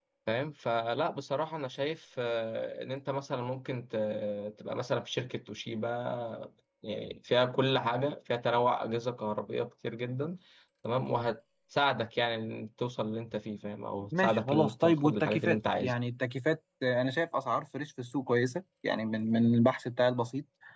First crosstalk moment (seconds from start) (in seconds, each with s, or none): 14.1 s